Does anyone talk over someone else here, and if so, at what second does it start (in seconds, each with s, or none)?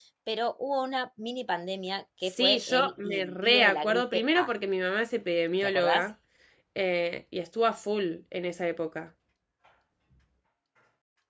2.4 s